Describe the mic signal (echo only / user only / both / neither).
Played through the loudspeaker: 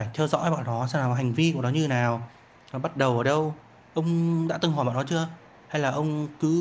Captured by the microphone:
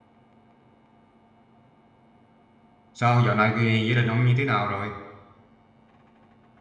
user only